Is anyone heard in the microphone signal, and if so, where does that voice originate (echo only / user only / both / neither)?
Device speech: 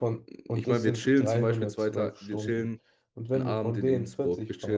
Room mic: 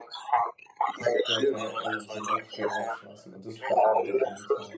both